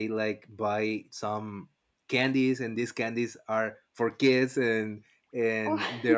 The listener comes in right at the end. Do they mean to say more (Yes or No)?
No